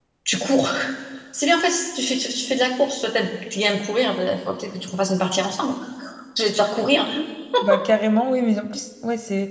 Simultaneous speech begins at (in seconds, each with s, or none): none